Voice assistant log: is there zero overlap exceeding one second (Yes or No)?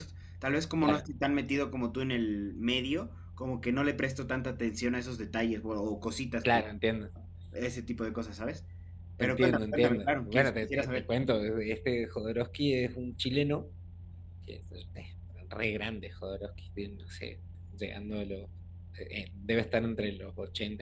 No